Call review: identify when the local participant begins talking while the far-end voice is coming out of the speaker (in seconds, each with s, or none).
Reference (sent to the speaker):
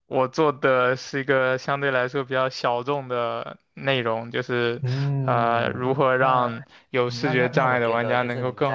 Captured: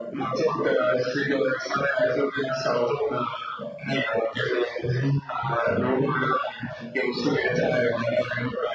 none